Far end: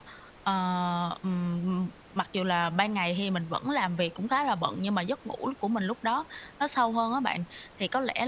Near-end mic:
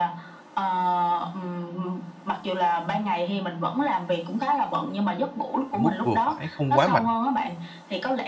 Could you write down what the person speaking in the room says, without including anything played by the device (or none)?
ở mức vừa phải không quá mạnh.